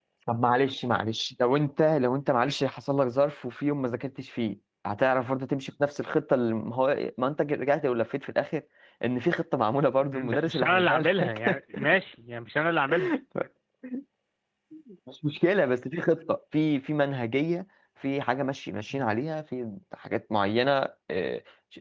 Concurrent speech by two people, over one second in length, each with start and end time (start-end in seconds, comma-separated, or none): 10.1-11.5